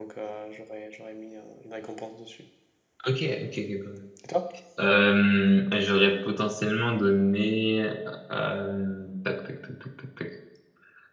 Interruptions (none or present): none